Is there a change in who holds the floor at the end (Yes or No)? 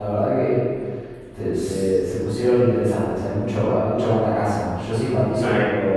No